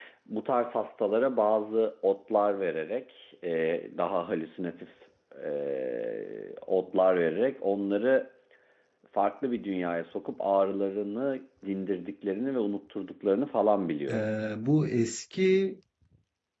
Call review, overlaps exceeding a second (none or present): none